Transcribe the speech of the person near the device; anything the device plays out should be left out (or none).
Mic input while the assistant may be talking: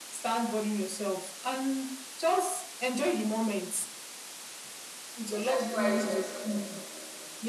Jesus Christ was